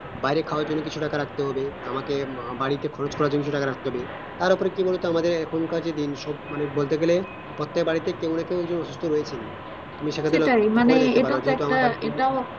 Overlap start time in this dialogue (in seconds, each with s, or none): 10.3 s